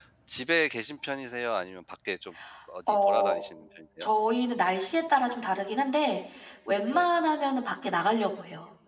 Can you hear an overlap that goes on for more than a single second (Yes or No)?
No